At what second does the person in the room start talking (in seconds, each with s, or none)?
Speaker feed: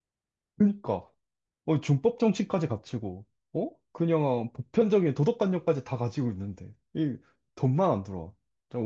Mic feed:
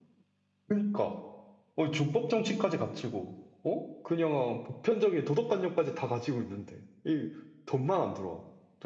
none